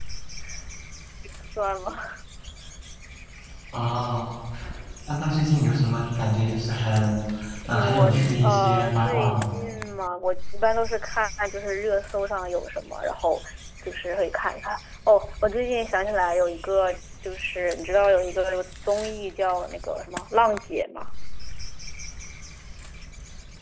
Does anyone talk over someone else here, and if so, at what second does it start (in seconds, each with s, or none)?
7.7 s